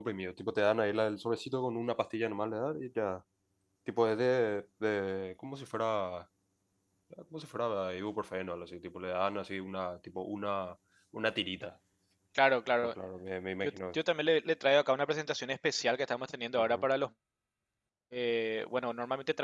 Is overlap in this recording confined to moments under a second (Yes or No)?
Yes